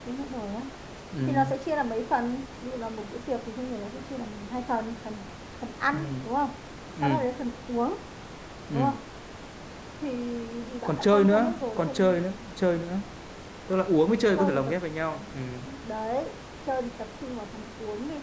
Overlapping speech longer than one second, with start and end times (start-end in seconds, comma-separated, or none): 10.9-12.3